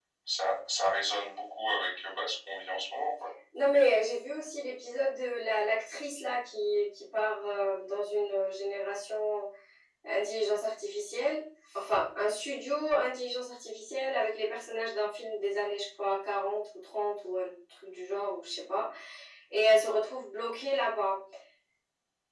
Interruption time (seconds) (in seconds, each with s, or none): none